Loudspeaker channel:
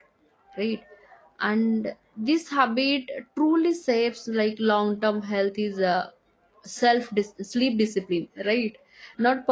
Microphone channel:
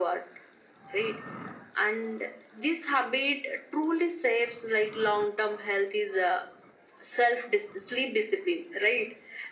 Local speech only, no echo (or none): none